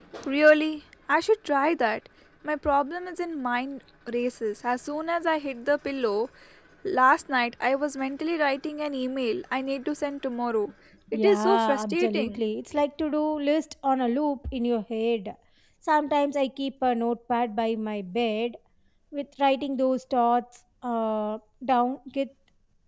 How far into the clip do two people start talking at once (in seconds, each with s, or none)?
11.1 s